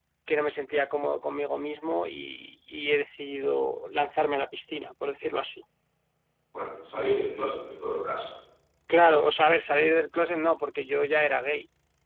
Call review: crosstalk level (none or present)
none